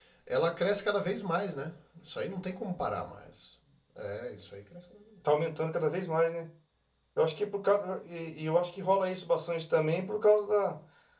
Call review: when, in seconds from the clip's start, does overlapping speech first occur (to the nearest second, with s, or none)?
none